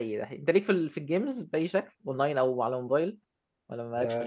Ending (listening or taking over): taking over